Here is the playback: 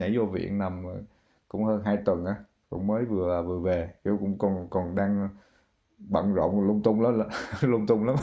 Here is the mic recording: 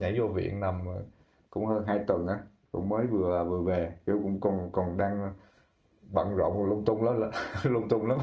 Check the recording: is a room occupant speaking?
No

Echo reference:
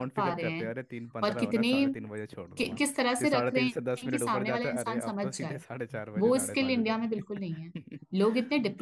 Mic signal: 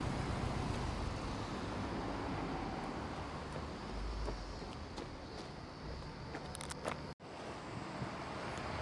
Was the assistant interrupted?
No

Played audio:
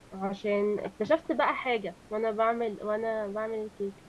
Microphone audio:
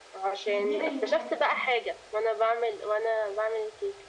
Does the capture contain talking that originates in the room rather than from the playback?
Yes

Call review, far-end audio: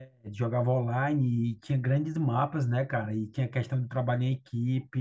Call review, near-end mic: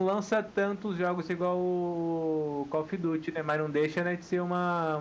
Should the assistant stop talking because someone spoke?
Yes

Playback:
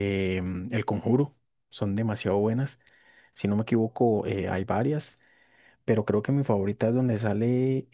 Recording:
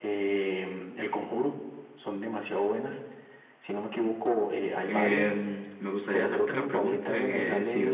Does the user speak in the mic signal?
Yes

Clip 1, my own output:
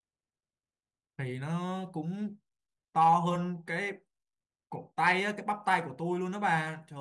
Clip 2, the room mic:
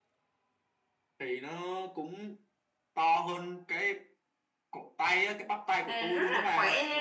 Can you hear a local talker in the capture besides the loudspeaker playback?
Yes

